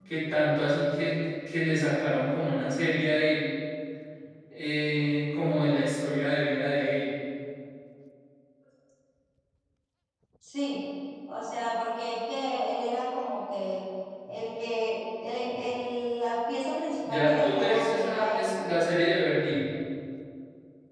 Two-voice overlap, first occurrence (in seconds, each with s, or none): 17.0 s